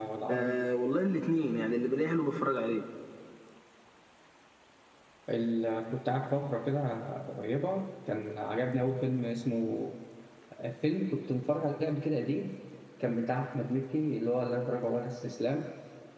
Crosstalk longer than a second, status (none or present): none